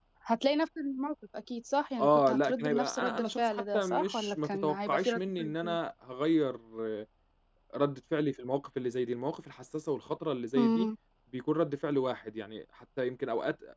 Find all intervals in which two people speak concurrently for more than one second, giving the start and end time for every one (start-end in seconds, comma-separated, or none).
2.0-5.8